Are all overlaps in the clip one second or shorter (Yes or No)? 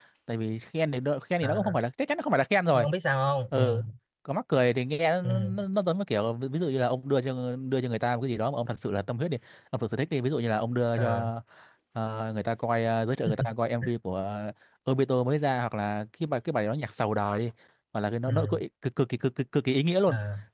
Yes